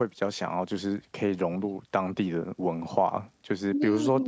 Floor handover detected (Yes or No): No